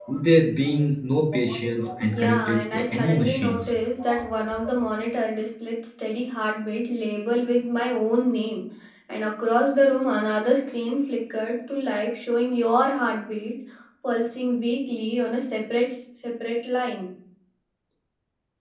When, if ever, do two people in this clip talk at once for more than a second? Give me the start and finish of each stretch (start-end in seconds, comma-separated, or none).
2.1-3.7